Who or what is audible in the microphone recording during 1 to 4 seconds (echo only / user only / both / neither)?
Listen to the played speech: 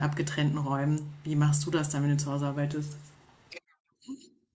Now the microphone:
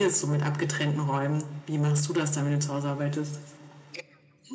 echo only